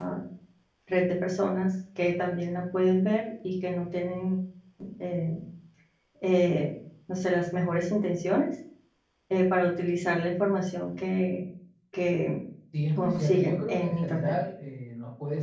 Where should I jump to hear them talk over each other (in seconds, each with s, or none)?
13.0 s